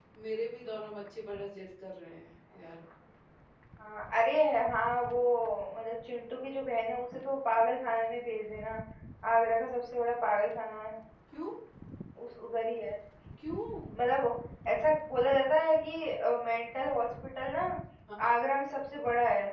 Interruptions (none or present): none